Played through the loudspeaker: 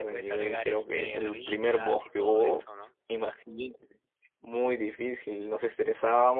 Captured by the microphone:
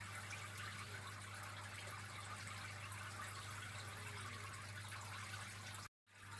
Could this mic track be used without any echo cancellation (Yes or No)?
Yes